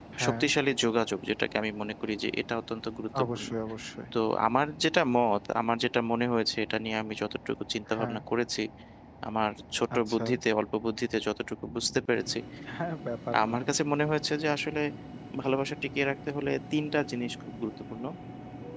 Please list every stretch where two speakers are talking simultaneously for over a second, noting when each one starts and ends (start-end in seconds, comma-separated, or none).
none